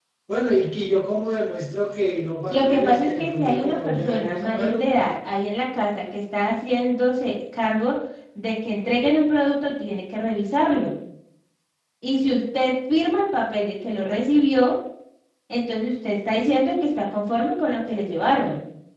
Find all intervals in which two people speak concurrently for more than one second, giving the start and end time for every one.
2.5-4.9

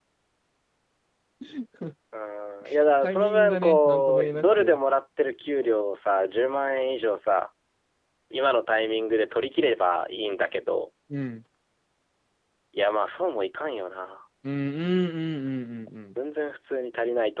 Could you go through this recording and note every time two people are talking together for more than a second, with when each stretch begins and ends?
3.0-4.8

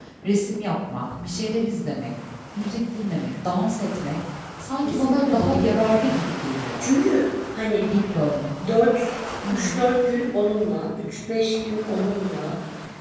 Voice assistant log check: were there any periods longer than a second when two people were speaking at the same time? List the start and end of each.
4.8-6.2

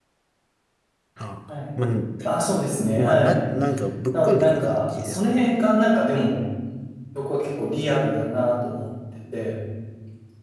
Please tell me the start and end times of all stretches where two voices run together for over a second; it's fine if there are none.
4.1-5.5

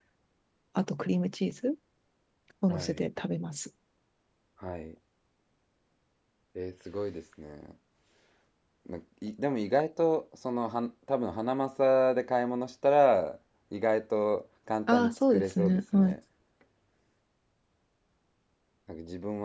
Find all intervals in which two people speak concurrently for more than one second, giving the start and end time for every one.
14.9-16.2

